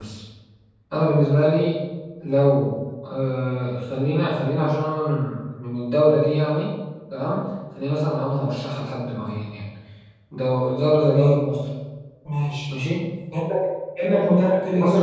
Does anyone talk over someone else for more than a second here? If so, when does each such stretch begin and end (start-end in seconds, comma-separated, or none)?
none